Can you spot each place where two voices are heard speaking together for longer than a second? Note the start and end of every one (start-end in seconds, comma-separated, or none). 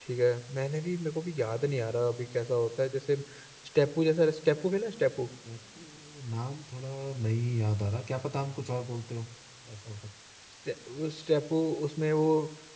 none